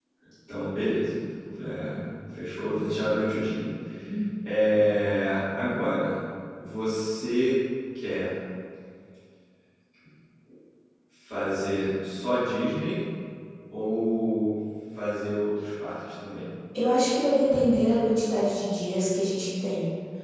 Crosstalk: none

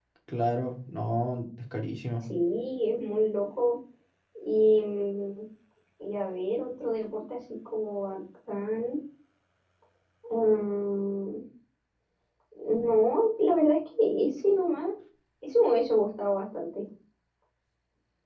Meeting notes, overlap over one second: none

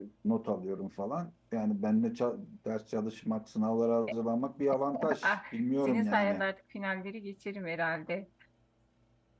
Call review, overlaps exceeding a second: present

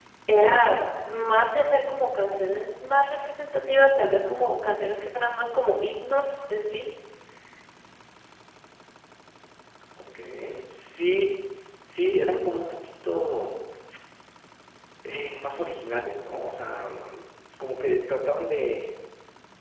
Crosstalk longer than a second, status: none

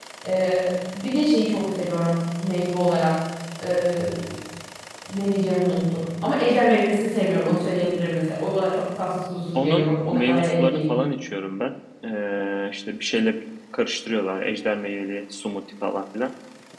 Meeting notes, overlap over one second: present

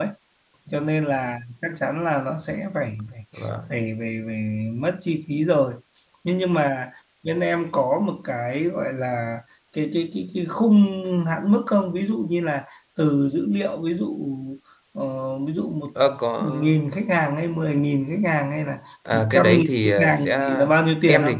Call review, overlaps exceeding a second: present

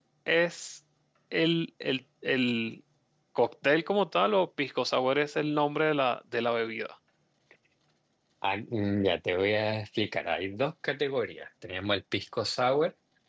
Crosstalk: none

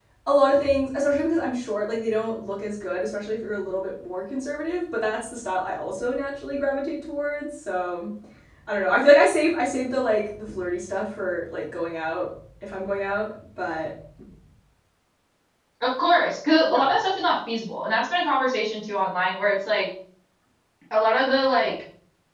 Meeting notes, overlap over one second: none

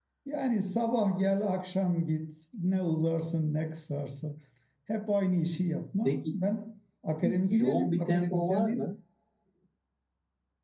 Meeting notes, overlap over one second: present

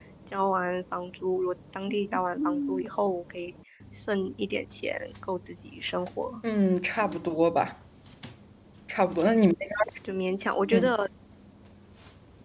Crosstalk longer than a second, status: none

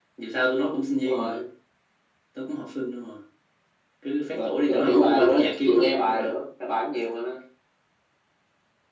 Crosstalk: present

